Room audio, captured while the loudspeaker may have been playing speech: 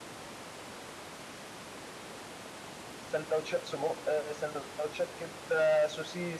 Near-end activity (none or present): present